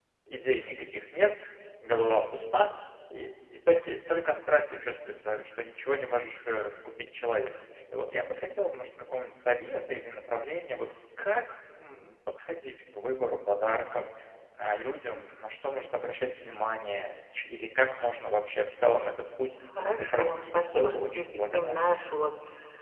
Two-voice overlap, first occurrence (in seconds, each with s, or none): 20.1 s